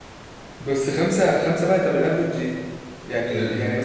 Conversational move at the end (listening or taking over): listening